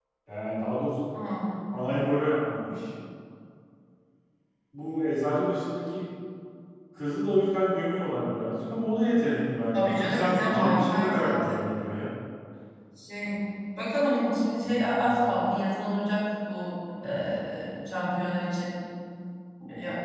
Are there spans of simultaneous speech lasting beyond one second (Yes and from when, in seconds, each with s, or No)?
Yes, from 9.7 s